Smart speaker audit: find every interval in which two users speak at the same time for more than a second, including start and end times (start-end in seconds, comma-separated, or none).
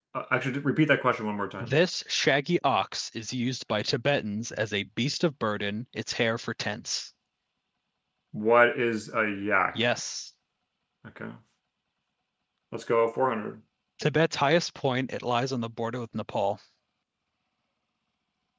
none